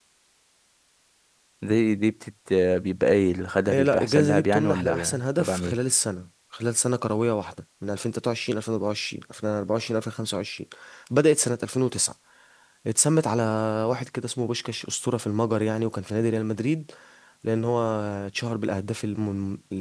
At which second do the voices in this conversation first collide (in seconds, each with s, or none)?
3.7 s